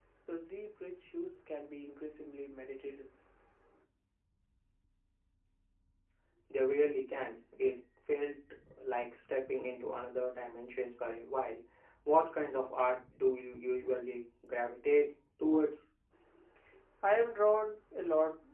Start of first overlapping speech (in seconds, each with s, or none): none